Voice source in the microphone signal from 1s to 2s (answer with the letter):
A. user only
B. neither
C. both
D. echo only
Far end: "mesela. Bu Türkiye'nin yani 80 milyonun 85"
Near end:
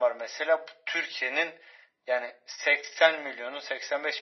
D